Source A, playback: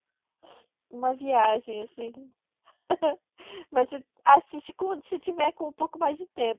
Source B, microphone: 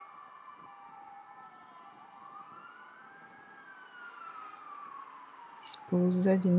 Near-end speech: present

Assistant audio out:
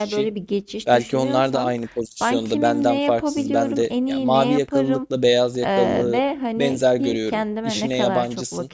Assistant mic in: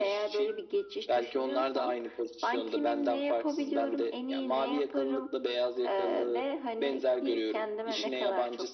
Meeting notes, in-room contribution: none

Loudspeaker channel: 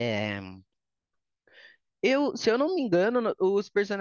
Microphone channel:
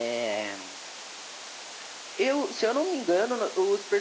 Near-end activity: none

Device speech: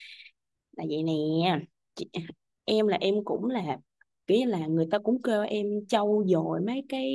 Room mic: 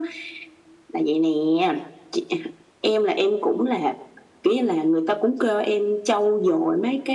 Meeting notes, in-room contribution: none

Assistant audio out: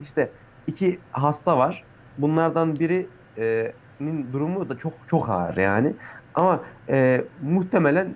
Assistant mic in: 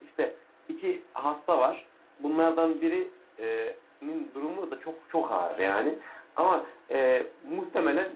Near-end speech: none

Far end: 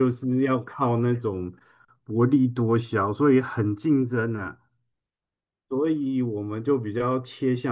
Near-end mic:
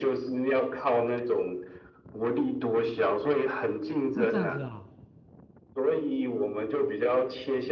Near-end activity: present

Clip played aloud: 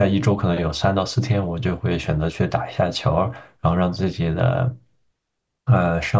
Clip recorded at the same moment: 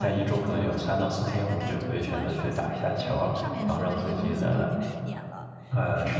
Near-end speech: present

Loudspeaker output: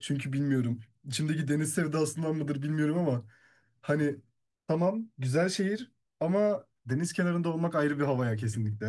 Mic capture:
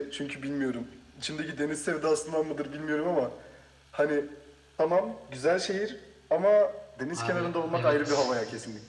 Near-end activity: present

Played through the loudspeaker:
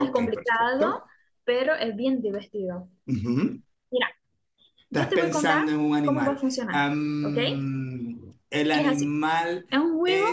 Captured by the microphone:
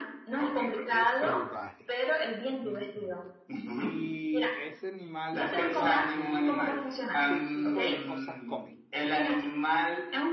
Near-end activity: present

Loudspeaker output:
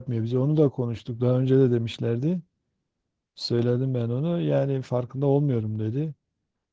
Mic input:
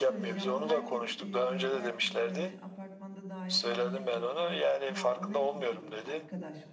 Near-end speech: present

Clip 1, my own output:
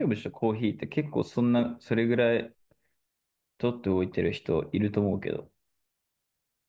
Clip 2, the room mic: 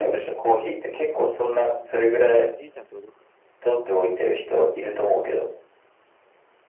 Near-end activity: present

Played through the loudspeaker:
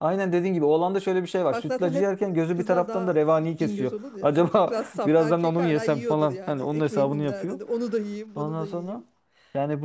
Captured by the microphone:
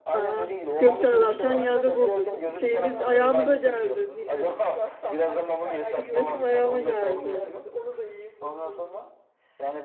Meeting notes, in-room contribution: present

